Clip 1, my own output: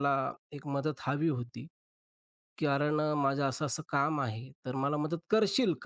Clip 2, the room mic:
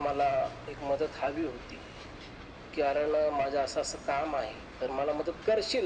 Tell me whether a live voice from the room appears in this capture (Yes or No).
No